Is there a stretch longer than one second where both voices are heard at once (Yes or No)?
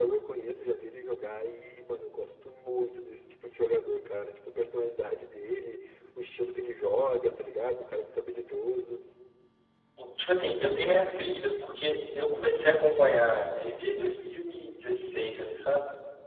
No